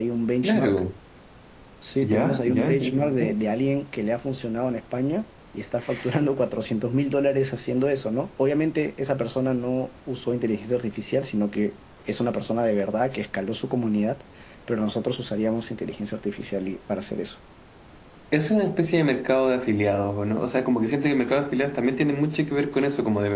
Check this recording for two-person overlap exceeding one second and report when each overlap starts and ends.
2.0-3.2

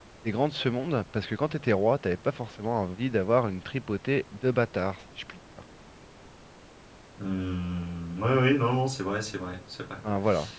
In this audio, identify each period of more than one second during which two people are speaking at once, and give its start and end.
none

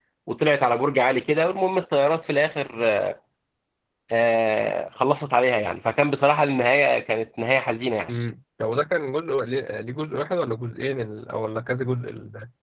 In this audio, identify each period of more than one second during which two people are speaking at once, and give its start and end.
none

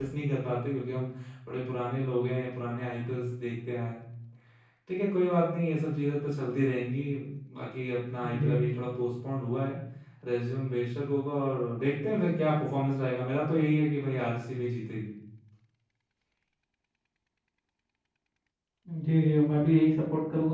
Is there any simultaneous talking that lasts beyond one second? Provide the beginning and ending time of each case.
none

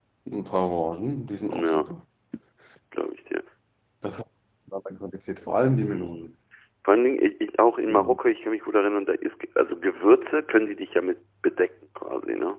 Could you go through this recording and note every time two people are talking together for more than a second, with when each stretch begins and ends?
none

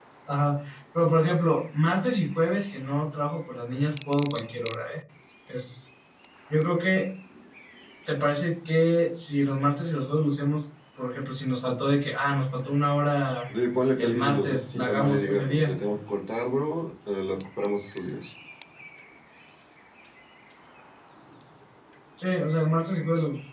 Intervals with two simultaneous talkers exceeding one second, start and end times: 14.0-15.8

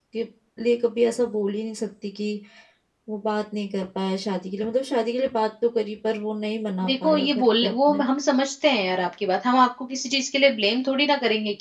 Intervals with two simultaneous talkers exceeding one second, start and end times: 6.8-8.0

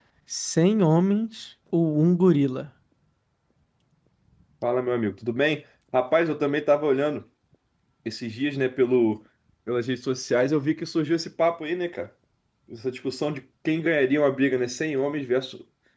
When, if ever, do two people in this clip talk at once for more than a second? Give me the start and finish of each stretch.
none

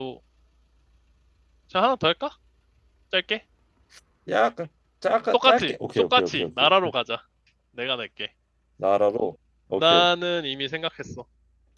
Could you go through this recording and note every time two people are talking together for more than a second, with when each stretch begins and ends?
5.3-6.7

